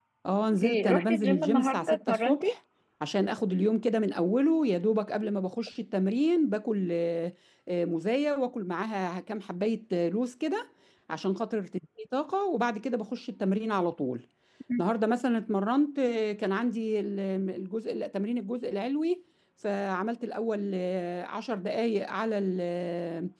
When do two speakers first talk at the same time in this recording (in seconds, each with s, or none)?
0.6 s